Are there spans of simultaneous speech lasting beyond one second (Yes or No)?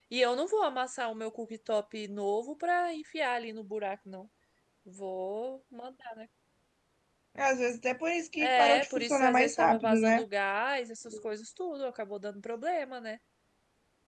Yes